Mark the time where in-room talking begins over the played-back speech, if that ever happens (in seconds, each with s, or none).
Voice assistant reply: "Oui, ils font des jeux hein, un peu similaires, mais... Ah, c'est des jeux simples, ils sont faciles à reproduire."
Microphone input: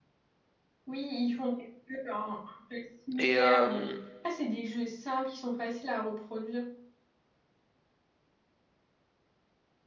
3.2 s